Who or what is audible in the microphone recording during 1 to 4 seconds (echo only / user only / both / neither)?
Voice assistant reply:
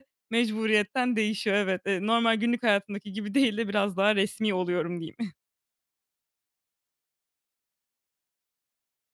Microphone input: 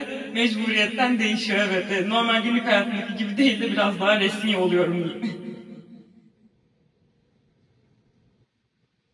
echo only